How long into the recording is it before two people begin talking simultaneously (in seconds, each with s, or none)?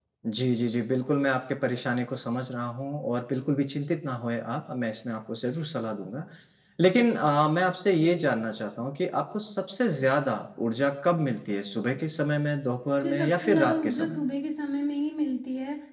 13.0 s